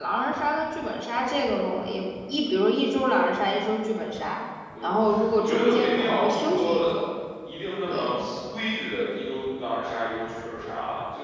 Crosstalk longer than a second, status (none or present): present